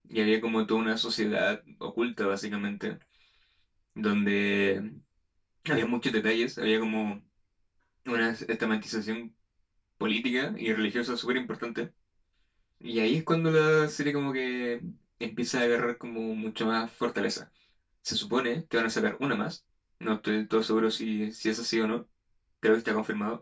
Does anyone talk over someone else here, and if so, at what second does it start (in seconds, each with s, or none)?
none